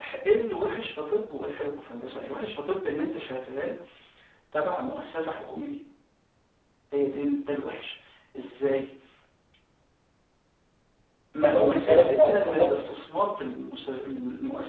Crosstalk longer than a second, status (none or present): present